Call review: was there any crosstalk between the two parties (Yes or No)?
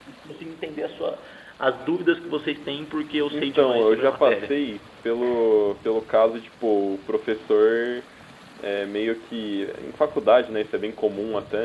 Yes